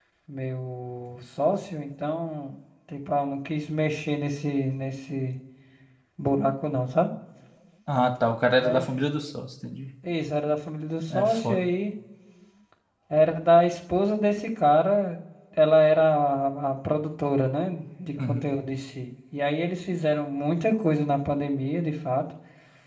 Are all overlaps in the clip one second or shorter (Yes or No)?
Yes